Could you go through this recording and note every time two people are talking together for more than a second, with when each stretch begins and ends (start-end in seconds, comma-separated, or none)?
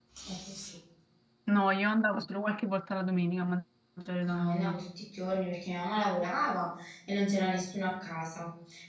none